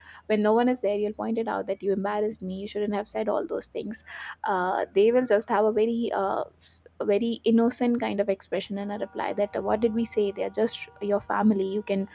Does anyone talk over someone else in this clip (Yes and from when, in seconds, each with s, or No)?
No